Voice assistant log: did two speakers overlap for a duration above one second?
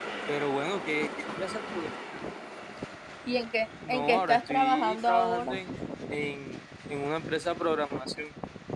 Yes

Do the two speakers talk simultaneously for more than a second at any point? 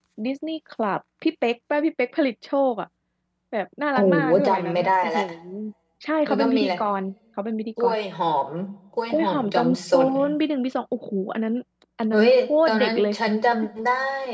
Yes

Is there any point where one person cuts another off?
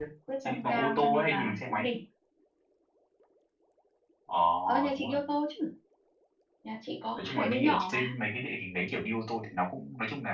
Yes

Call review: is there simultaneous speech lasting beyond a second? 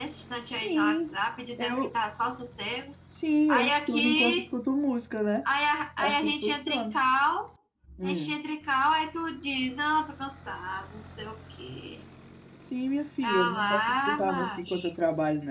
Yes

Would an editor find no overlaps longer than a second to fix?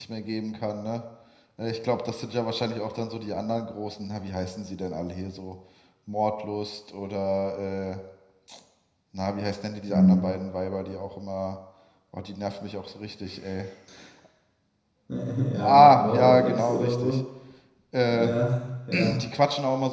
No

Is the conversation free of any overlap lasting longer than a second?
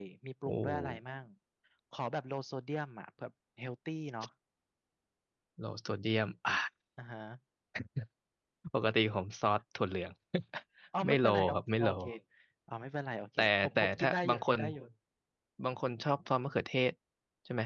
No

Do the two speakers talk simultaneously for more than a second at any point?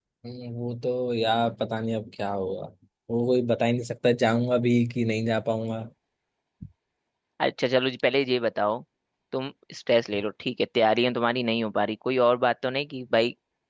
No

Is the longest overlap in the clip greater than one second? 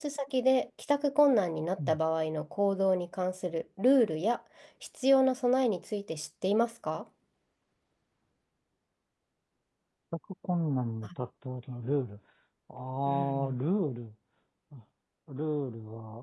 No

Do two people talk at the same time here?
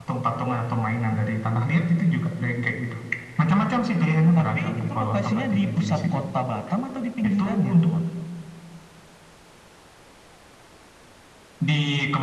Yes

